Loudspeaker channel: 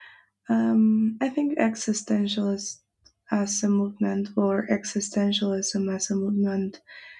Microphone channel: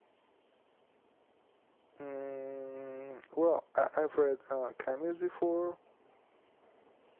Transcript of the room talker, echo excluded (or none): mm, well I, i've read uh cameos before